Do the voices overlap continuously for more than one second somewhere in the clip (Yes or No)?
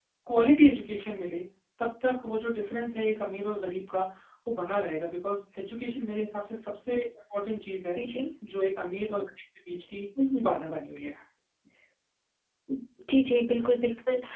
No